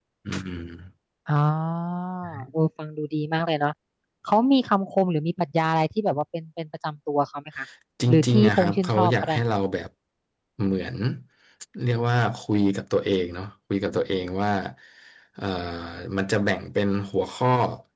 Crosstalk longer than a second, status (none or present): present